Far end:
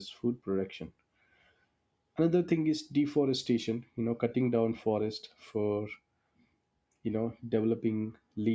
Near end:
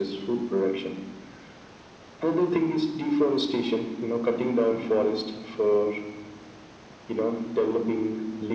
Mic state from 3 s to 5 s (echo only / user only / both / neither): echo only